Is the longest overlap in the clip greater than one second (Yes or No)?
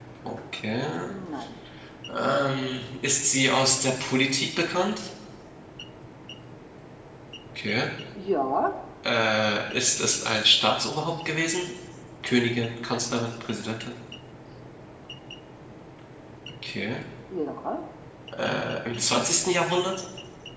No